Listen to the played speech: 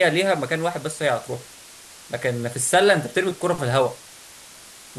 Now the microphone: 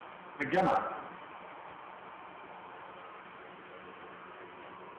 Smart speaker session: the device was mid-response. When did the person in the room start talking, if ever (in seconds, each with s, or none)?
0.3 s